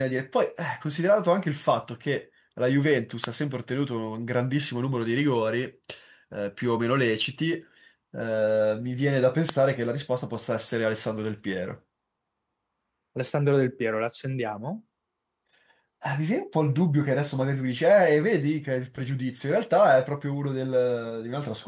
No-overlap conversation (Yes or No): Yes